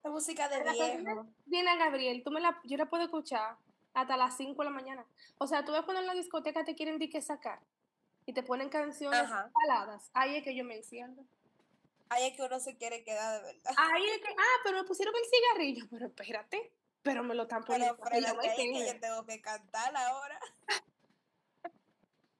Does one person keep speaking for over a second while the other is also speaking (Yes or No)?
Yes